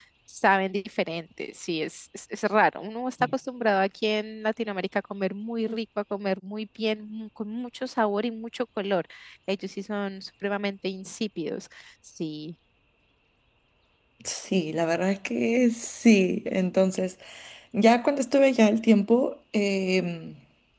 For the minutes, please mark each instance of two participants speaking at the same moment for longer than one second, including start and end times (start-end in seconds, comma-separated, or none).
none